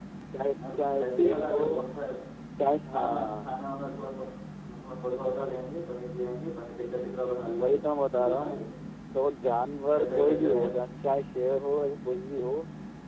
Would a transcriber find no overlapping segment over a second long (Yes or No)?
No